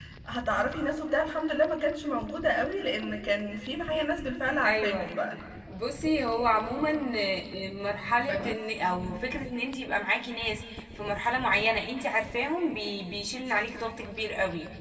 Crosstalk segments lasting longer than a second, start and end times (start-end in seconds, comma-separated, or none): none